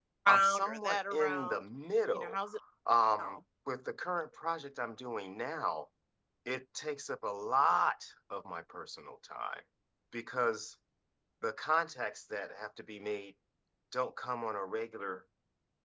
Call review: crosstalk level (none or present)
present